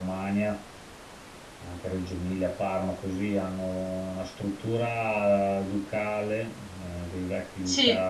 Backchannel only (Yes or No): No